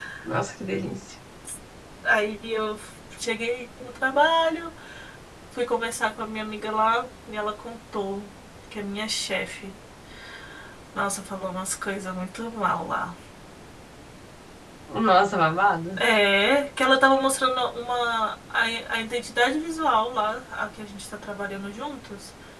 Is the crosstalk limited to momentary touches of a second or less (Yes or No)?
Yes